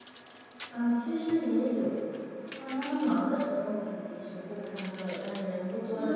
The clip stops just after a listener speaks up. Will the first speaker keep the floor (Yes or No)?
No